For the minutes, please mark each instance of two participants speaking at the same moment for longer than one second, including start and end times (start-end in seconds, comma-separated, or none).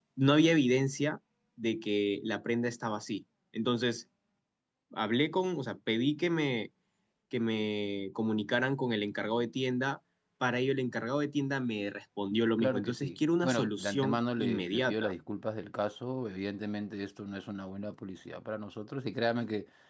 12.6-15.1